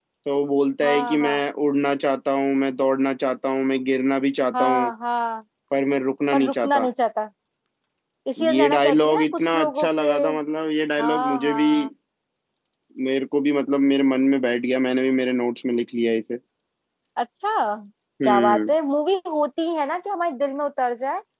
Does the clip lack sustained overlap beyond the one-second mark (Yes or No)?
No